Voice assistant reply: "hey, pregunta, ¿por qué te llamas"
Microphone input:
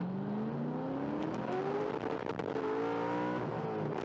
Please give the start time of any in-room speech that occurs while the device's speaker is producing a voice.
none

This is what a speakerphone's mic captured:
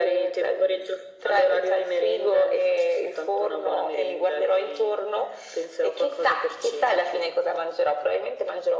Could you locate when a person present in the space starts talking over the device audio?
none

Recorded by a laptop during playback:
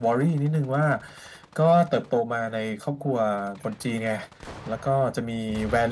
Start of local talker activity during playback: none

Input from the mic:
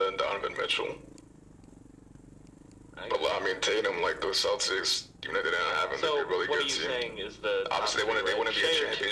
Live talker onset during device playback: none

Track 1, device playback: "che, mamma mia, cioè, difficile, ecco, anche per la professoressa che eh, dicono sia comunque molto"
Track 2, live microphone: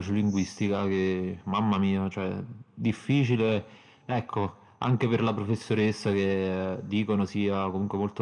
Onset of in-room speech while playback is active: none

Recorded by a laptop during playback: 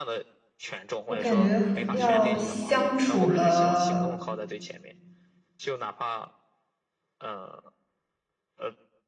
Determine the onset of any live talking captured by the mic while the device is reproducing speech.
1.1 s

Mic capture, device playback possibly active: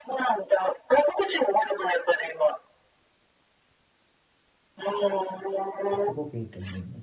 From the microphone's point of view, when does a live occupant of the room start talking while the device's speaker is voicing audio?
5.9 s

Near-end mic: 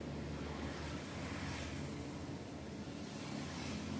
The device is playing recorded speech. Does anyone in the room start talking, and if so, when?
none

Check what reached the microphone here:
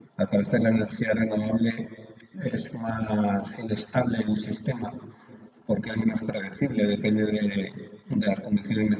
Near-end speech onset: none

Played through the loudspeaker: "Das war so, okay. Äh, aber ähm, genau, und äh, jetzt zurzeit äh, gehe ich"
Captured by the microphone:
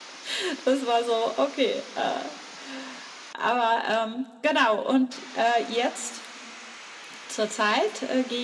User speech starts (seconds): none

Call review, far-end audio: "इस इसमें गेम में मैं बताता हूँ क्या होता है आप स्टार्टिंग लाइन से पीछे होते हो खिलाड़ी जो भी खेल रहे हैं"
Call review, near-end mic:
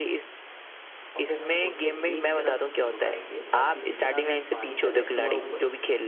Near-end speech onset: 1.2 s

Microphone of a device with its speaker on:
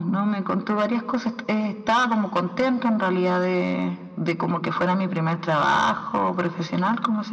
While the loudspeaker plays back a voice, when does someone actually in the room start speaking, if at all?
none

